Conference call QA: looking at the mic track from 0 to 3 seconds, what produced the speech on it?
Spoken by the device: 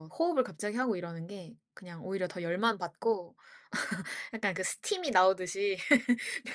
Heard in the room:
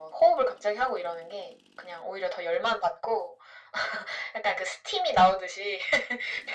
echo only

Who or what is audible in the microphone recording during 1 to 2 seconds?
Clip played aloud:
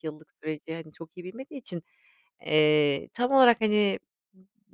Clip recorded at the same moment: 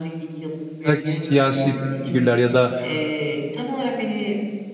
both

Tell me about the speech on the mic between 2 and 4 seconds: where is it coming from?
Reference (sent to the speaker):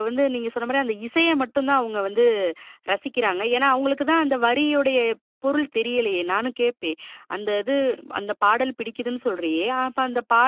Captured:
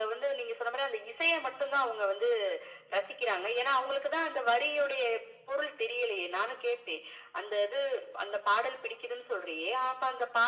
echo only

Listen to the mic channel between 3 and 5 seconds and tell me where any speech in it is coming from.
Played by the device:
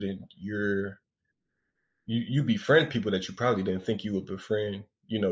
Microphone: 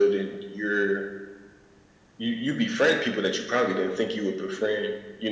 echo only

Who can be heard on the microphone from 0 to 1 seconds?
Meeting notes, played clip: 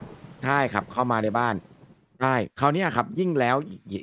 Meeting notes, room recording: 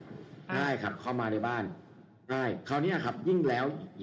both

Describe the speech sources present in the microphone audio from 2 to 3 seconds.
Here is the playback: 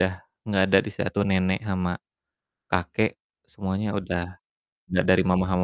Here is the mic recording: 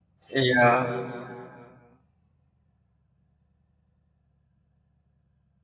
neither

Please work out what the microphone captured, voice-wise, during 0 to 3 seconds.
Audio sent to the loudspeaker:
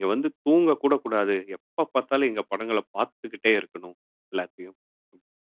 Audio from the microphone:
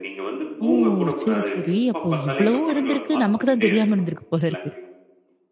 both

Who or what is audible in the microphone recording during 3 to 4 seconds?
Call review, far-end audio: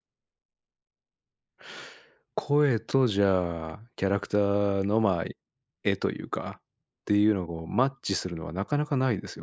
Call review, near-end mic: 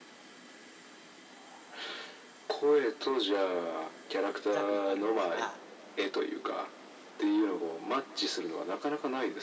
echo only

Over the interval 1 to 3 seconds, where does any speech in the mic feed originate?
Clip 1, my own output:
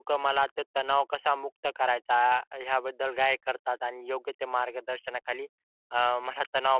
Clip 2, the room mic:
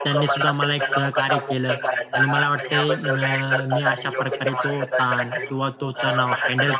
both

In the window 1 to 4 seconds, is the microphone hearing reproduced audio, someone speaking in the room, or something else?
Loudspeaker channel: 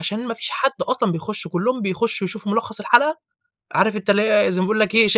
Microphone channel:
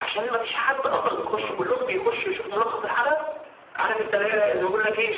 both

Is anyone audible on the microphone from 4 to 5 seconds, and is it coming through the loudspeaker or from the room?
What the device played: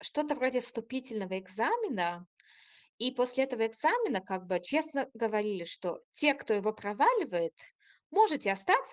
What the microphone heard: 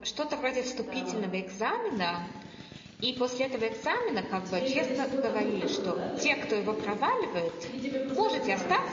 both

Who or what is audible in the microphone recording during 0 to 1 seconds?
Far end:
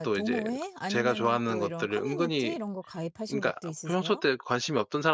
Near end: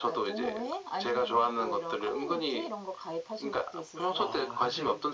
echo only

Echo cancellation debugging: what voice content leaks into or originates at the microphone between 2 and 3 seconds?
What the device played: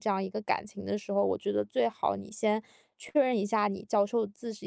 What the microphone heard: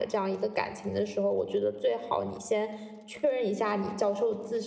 echo only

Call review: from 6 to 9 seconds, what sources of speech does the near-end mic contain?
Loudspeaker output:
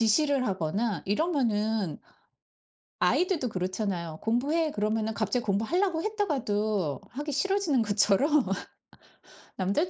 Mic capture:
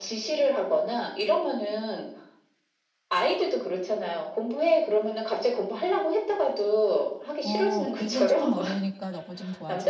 both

